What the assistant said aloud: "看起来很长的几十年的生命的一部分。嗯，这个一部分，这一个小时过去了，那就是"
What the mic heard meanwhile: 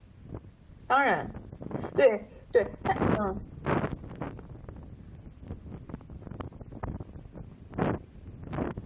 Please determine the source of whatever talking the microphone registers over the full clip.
user only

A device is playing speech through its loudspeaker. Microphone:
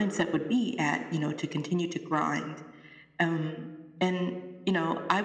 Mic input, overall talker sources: echo only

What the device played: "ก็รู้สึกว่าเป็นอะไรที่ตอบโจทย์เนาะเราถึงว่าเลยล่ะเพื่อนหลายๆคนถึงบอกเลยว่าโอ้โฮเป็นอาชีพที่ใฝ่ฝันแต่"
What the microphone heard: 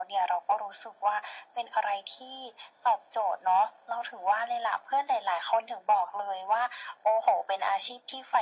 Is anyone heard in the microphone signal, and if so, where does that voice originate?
echo only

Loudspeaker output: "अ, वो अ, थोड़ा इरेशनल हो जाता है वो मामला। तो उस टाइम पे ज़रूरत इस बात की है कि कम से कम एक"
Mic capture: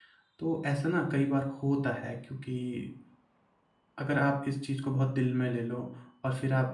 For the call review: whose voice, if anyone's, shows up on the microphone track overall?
user only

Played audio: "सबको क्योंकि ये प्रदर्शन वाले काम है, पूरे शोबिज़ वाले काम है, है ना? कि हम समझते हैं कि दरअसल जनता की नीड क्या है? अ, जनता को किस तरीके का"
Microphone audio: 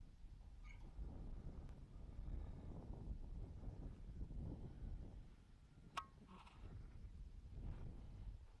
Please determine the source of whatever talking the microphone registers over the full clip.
neither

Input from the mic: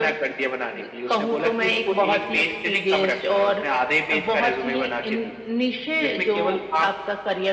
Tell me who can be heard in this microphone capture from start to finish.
echo only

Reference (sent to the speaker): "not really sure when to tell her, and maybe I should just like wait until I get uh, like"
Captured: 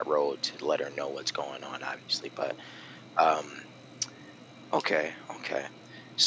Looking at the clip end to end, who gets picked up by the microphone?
user only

